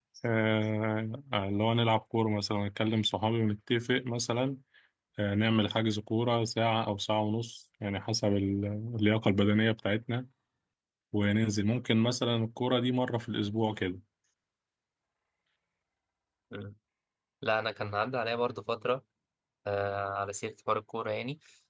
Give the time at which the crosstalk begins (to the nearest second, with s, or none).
none